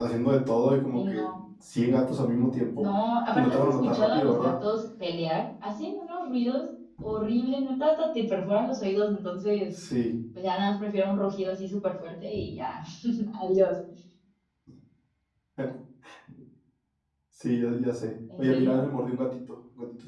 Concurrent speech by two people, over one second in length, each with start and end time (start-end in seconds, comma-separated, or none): 3.3-4.5